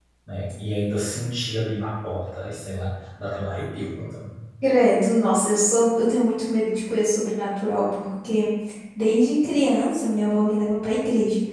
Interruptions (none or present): none